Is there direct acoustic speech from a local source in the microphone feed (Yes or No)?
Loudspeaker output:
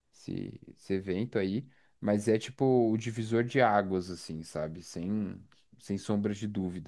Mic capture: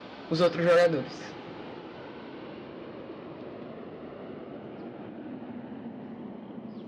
Yes